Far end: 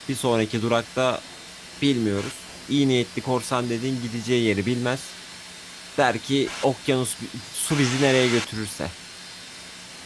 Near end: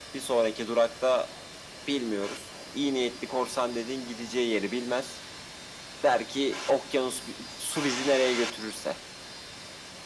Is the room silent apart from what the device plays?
Yes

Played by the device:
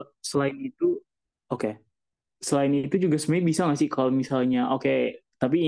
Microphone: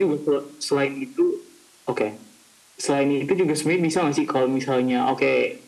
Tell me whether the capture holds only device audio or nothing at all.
Yes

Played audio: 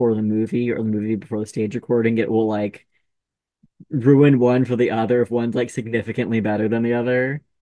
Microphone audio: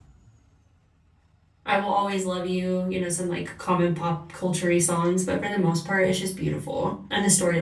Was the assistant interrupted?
Yes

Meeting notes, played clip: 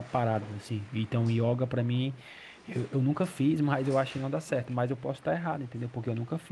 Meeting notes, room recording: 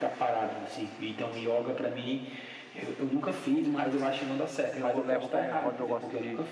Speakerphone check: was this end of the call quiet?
No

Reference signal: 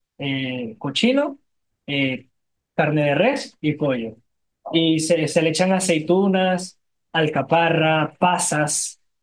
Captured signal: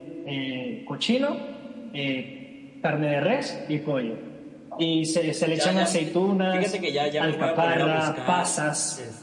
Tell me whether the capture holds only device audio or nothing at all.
No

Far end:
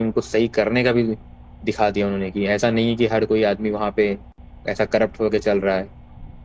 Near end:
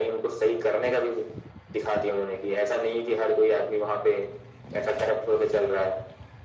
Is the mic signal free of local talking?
Yes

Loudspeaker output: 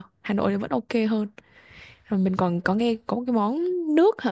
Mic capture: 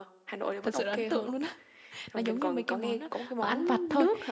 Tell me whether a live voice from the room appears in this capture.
Yes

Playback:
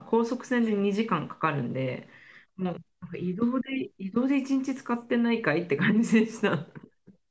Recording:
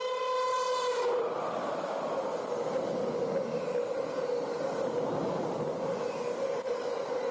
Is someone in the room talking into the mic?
No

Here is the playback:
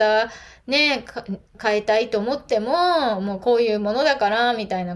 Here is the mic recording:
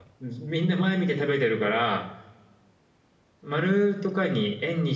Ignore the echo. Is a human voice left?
Yes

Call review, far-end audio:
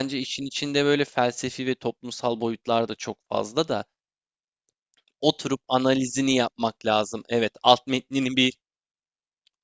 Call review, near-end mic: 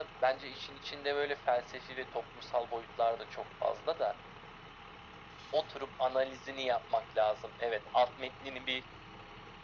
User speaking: No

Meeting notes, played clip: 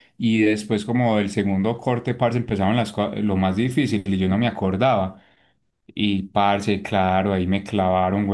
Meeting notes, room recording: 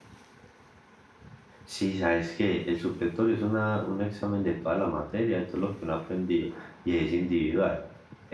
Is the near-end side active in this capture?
Yes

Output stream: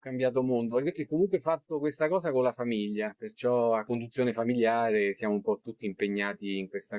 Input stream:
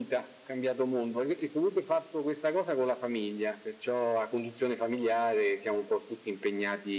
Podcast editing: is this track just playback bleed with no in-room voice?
Yes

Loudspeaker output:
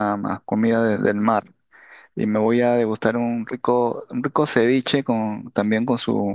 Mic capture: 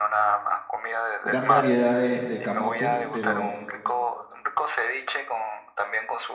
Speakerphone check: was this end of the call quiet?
No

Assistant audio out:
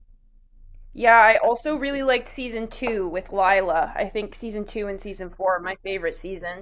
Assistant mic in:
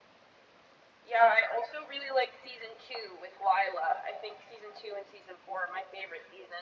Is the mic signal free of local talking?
Yes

